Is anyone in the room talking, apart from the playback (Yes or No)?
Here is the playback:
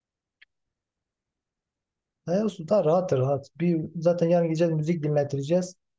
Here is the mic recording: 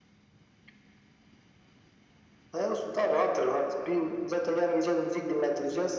No